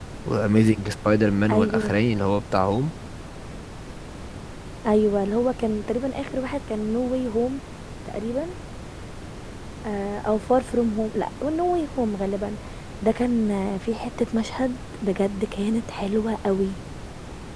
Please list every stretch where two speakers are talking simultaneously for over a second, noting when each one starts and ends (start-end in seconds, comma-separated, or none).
none